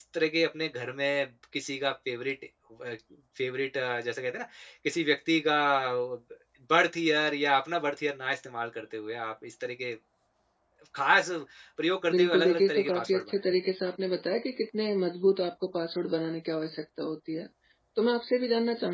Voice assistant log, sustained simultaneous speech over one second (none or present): present